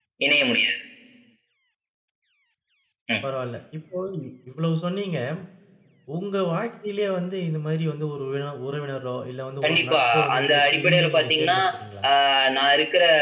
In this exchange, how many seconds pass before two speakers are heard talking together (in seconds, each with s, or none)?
9.6 s